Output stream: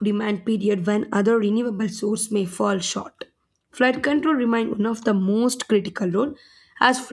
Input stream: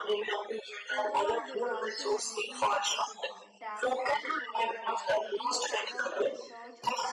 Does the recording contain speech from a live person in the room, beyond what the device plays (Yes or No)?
Yes